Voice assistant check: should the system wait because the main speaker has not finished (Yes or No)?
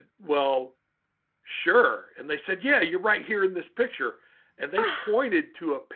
Yes